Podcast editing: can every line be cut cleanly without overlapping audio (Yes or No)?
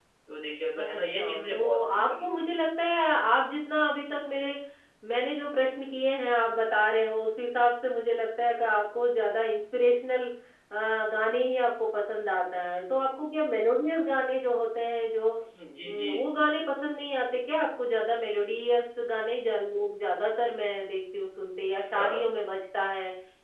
No